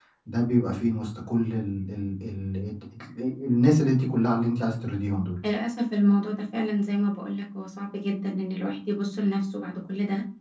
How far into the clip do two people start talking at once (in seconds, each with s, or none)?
none